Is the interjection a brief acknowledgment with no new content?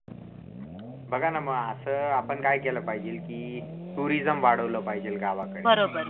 Yes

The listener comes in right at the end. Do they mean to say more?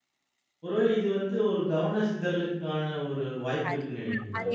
Yes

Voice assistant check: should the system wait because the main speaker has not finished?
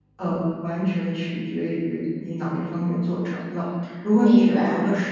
Yes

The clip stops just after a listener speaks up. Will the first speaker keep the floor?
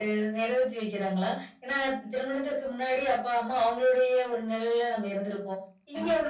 Yes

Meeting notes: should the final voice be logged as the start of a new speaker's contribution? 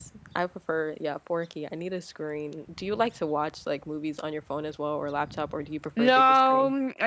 Yes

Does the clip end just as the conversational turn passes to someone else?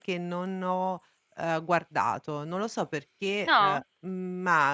No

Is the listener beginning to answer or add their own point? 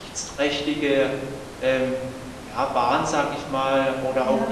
No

